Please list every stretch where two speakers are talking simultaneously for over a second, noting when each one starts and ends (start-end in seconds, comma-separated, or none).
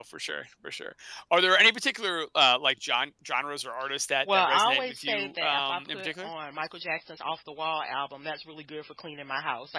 4.3-6.3